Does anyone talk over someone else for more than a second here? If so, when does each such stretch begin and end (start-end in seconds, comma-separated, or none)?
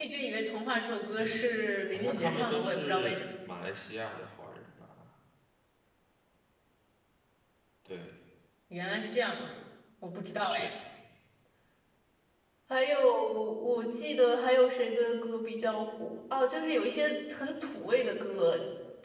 1.9-3.2